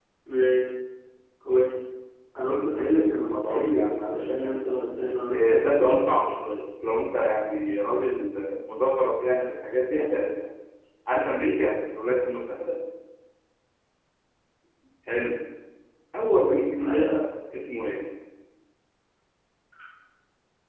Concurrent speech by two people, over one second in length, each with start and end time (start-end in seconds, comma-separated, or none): 3.3-4.6